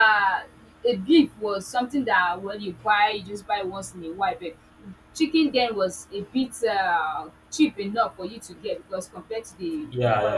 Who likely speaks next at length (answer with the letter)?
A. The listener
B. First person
B